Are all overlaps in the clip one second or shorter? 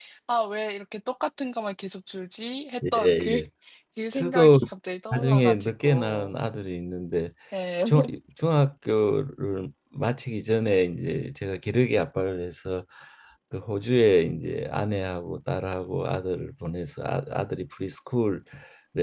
No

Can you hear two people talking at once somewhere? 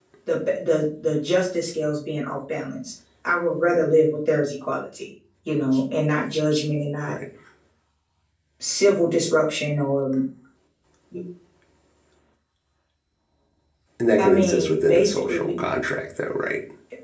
Yes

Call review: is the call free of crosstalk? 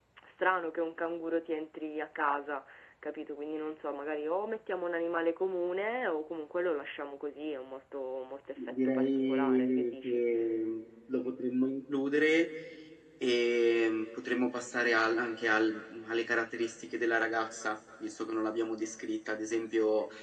No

